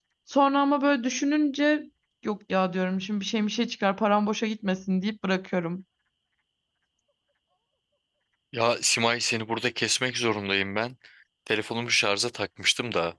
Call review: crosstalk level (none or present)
none